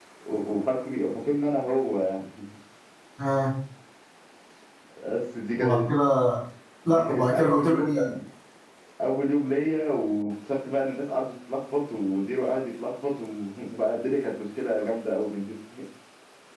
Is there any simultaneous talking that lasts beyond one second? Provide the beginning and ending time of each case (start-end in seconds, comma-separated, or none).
6.8-8.1